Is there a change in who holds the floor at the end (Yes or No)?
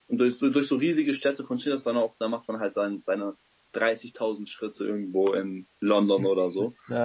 Yes